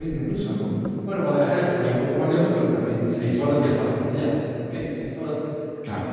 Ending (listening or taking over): listening